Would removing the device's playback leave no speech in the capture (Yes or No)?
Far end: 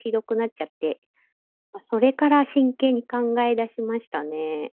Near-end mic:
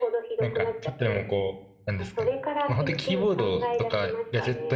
No